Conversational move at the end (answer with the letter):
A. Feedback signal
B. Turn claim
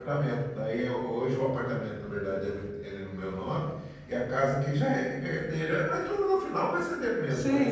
B